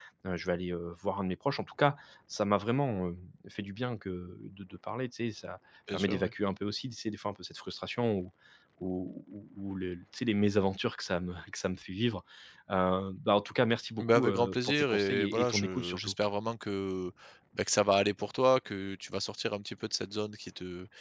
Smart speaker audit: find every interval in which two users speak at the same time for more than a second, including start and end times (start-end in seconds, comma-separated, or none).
14.0-16.1